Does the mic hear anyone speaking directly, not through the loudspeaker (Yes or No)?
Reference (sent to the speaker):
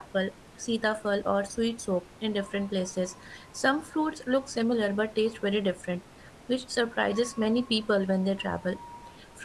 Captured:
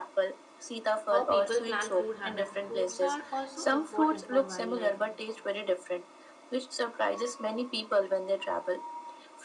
Yes